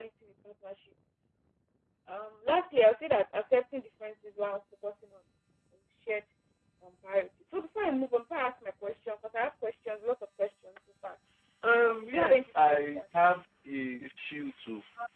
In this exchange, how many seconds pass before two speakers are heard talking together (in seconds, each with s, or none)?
11.8 s